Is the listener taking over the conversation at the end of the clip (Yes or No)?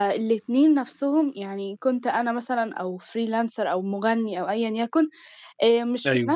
No